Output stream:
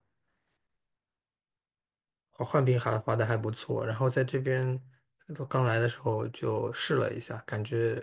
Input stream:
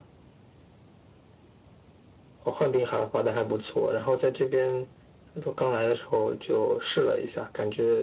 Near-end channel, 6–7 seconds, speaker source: echo only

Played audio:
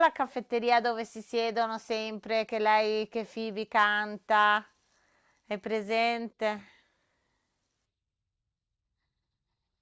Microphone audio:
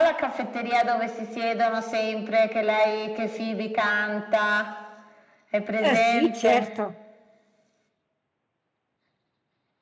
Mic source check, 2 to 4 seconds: echo only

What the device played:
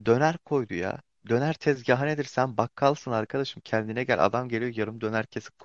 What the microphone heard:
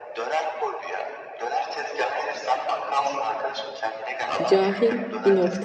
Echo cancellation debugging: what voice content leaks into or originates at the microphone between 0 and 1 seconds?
echo only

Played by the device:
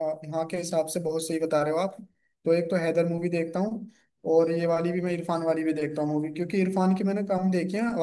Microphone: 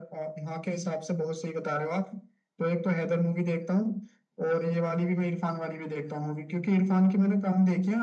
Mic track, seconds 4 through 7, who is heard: echo only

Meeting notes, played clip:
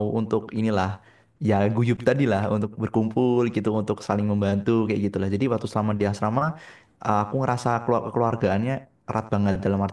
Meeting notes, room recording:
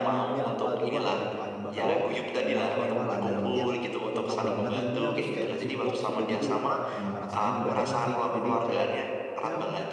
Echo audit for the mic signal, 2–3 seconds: both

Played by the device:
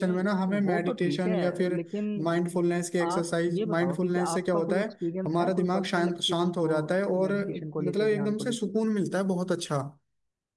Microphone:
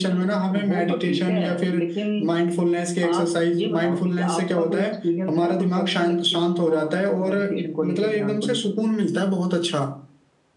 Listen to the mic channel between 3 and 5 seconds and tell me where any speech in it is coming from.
echo only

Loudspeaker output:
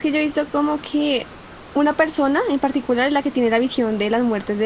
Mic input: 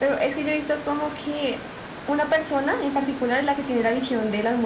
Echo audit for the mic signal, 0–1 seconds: echo only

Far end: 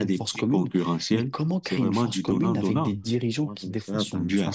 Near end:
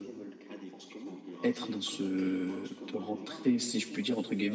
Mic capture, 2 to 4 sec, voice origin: both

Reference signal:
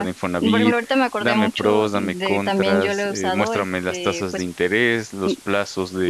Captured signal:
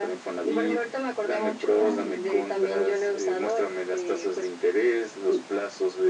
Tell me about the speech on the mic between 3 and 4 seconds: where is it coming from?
echo only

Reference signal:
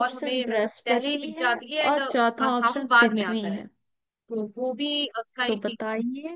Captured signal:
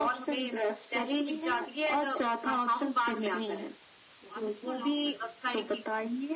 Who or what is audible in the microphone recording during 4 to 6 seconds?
both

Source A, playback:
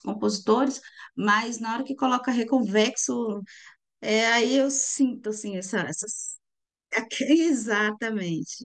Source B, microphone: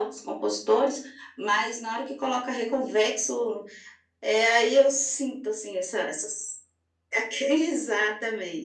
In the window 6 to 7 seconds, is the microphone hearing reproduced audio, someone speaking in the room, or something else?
echo only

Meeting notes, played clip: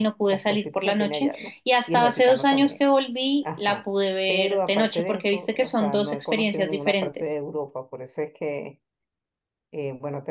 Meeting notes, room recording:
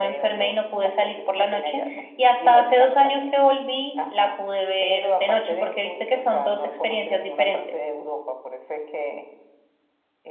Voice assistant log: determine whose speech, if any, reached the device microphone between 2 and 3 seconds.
echo only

